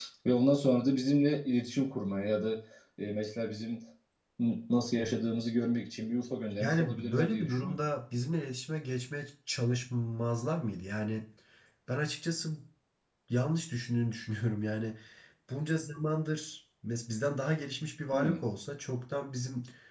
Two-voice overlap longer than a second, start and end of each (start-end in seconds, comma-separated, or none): 6.6-7.8